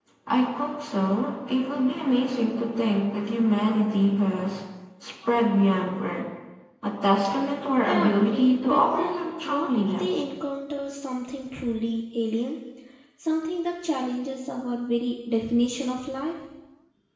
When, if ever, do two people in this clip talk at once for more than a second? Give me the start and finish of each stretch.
7.8-10.1

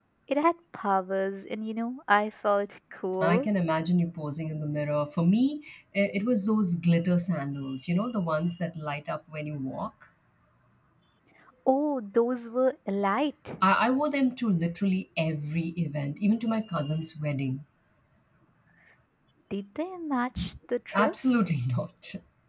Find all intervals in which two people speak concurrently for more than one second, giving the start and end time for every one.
none

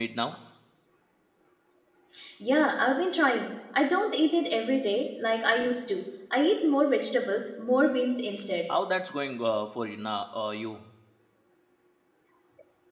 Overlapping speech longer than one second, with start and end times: none

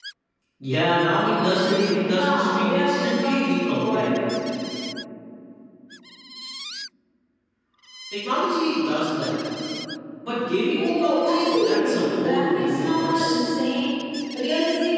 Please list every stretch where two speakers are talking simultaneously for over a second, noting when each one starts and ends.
2.1-4.2, 10.8-13.4

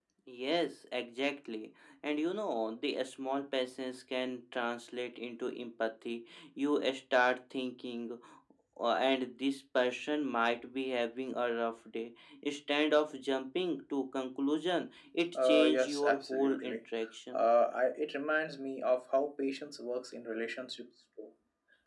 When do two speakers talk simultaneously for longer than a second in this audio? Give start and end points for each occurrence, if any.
15.4-16.8

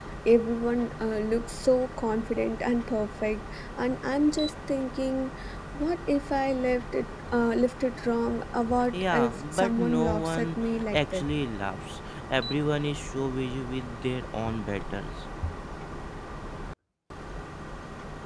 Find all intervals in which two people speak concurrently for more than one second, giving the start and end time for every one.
8.9-10.5

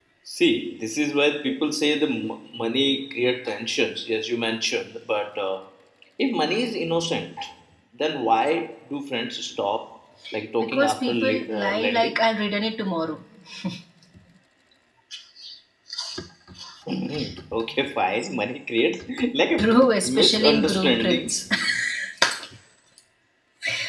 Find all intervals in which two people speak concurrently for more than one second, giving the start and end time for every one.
10.6-12.1, 20.1-21.4

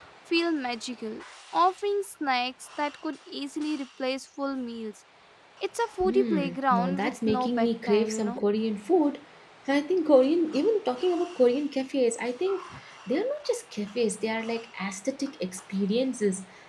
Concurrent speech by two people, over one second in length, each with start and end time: 6.0-8.4

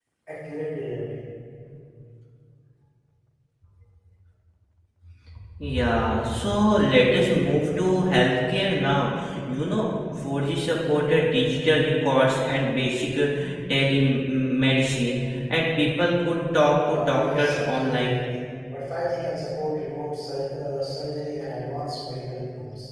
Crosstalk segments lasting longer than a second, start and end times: 16.9-18.1

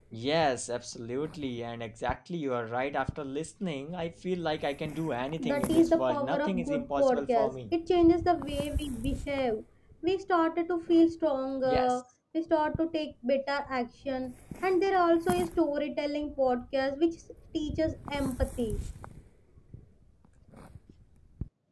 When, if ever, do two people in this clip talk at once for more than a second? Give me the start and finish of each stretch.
5.4-7.8

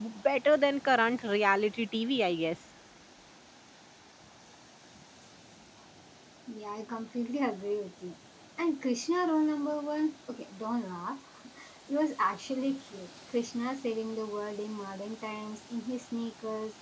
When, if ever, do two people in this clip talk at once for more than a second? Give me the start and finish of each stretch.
none

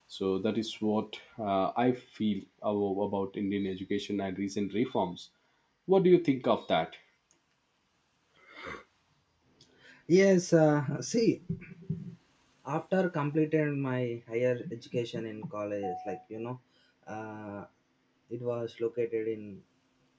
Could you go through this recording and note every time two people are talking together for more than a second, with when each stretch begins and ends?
none

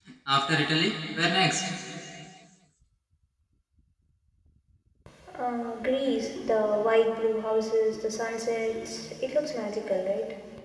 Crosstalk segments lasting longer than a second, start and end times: none

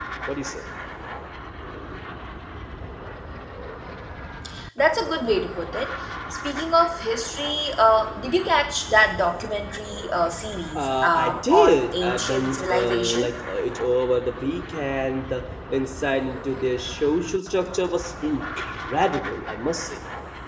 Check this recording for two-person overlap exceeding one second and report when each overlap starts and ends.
10.8-13.3

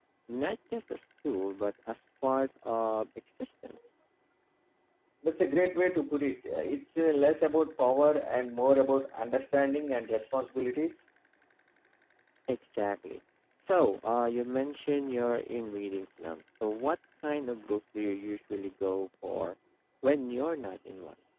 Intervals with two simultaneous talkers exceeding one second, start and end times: none

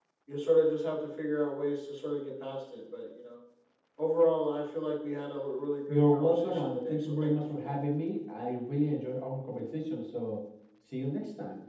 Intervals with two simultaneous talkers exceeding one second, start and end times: 5.9-7.8

